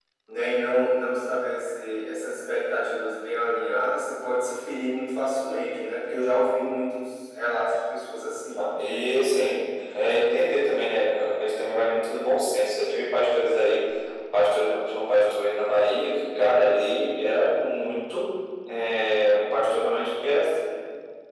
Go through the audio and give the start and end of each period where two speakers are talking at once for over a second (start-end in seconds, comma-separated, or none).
none